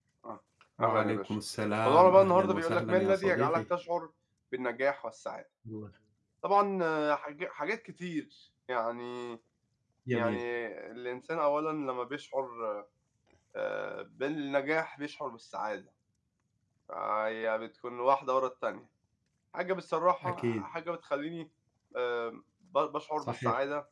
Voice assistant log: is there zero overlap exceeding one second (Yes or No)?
No